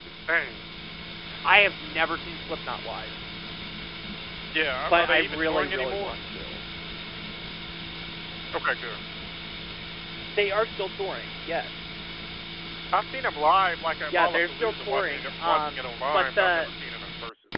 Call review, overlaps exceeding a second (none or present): present